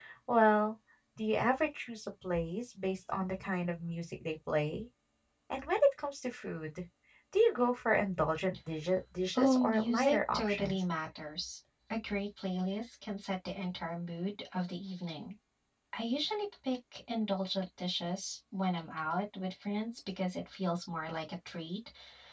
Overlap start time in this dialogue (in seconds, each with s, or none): 9.4 s